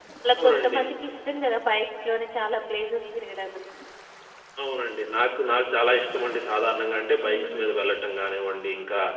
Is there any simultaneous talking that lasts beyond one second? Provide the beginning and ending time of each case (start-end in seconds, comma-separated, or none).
none